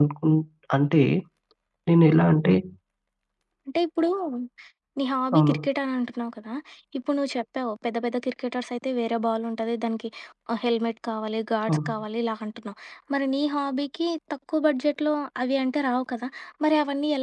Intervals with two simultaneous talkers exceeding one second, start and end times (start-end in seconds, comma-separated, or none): none